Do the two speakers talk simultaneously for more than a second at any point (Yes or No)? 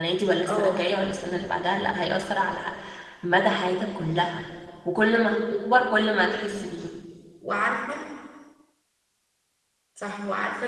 No